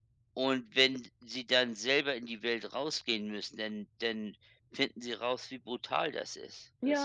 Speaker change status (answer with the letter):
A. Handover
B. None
A